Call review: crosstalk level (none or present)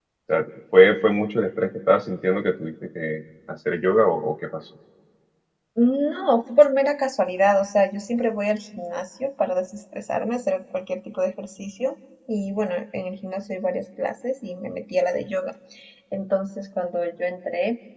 none